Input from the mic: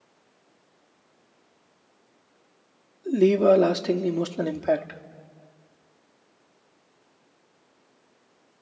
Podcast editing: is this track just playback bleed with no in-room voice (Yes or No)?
No